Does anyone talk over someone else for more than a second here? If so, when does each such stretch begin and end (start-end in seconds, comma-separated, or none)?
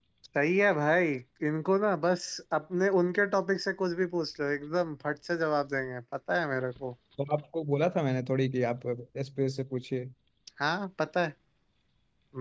none